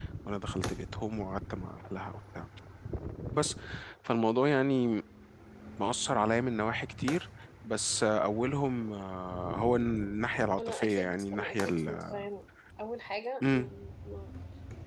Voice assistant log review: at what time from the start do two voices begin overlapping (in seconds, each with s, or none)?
10.6 s